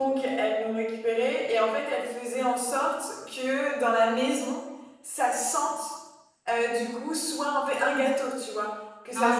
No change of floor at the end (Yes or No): Yes